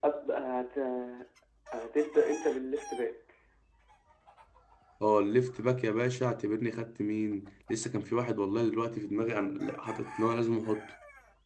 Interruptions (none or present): none